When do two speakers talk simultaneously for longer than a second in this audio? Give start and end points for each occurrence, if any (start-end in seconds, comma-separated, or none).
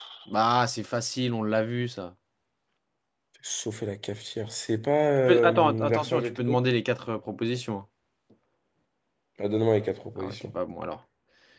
5.3-6.6